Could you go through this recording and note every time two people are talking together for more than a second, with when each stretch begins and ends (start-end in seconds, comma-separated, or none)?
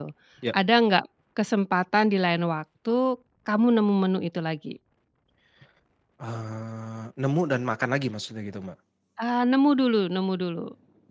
none